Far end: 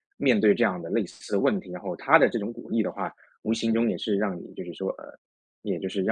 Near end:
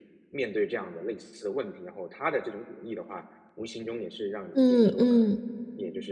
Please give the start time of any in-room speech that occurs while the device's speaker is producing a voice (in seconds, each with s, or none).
4.5 s